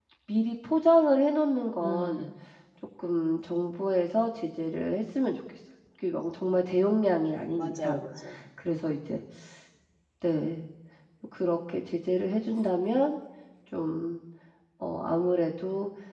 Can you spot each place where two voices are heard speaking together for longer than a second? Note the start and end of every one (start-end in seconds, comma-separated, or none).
none